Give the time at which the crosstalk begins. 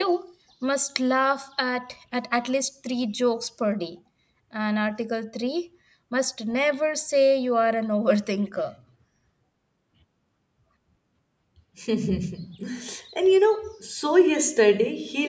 none

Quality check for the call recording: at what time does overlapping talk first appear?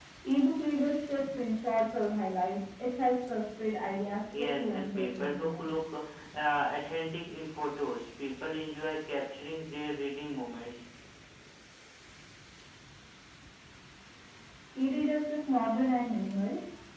4.4 s

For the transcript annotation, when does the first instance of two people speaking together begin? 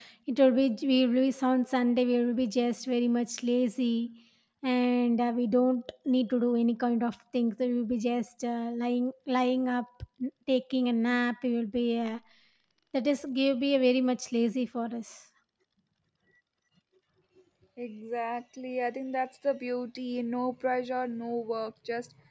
none

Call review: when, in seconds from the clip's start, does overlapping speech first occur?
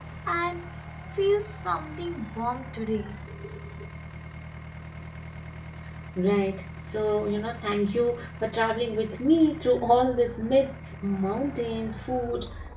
none

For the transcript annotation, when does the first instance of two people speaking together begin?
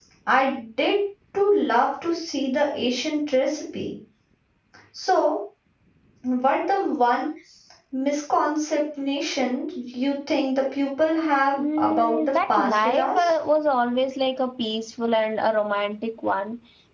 11.5 s

